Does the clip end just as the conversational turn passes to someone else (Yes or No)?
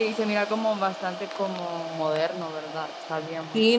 Yes